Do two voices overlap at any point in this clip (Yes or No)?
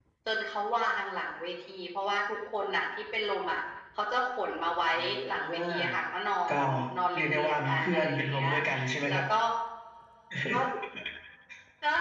Yes